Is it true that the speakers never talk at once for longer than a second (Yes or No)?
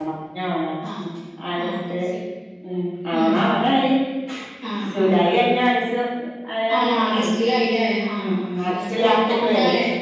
No